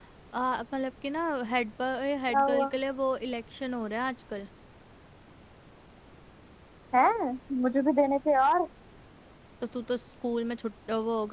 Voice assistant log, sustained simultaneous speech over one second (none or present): none